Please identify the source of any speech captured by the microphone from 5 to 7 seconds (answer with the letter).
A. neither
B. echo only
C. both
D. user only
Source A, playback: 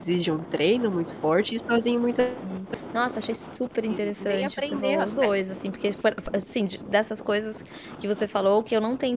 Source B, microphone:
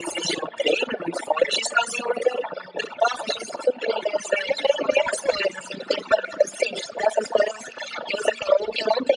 B